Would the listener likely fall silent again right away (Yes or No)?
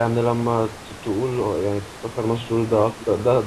Yes